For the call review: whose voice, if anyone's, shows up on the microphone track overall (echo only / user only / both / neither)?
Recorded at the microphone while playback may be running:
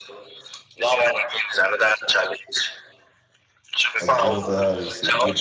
both